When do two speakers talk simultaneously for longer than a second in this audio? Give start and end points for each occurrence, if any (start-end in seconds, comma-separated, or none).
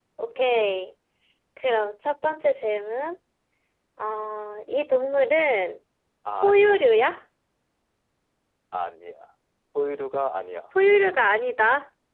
none